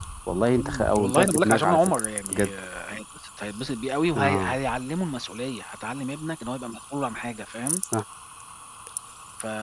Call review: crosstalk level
present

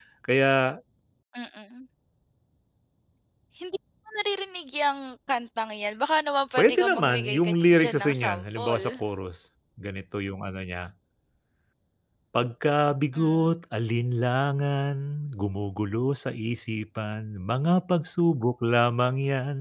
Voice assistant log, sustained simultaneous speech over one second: present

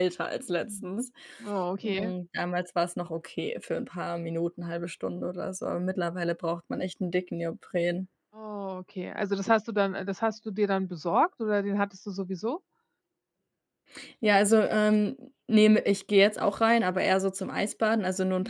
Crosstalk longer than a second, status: none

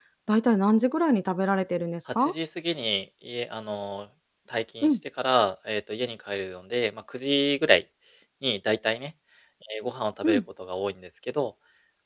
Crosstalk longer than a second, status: none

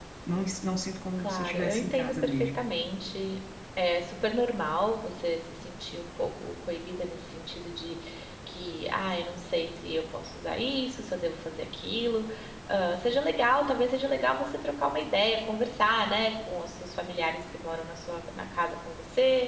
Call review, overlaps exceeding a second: present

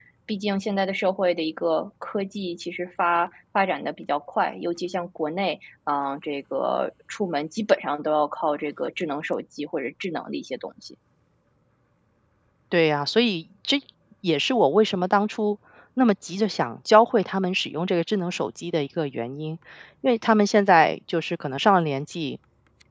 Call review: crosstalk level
none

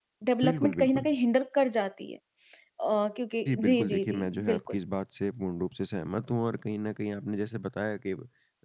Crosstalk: present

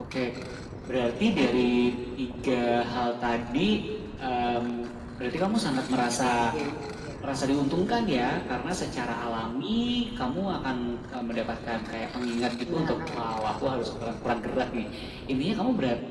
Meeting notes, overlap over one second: none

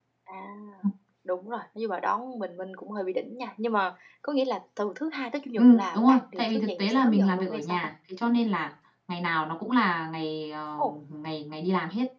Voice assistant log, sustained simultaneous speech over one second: present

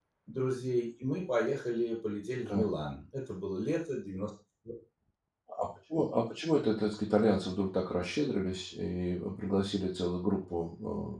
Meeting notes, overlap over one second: none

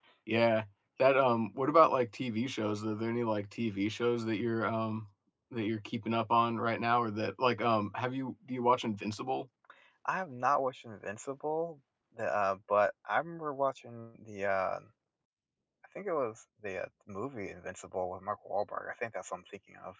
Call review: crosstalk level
none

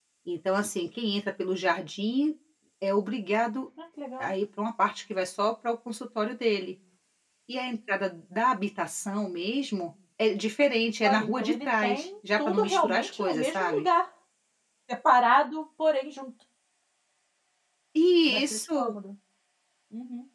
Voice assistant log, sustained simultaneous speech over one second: present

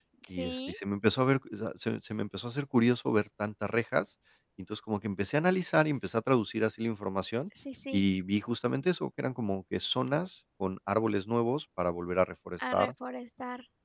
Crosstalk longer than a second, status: none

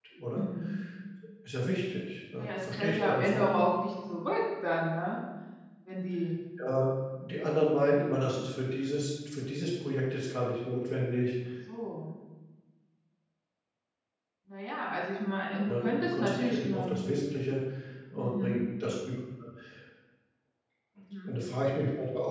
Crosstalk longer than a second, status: present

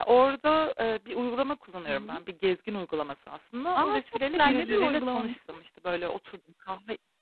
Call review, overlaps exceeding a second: present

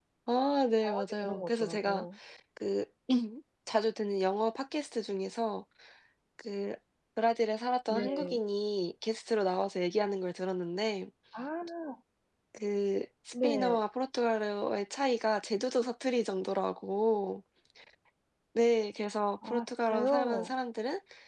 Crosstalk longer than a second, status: present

